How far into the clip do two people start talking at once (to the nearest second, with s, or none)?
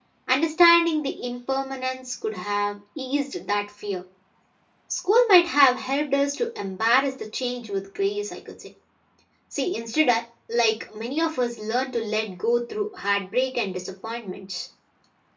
none